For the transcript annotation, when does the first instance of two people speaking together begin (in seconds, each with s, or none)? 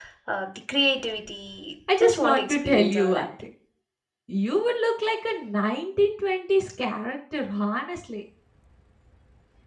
1.9 s